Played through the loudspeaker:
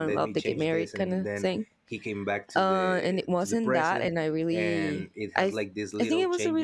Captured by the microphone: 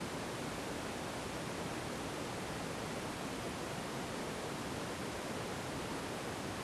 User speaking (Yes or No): No